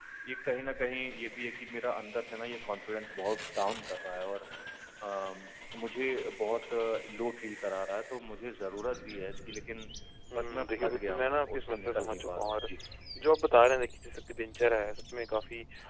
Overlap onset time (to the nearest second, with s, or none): 10 s